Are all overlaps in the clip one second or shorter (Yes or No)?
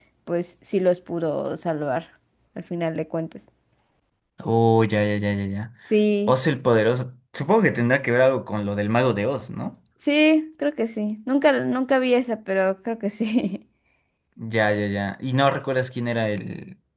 Yes